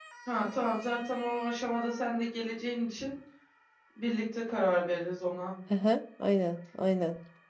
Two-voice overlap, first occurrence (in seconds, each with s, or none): none